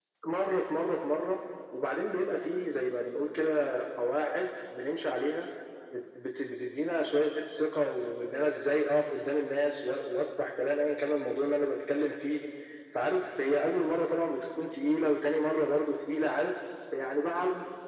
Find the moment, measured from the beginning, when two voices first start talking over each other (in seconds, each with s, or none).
none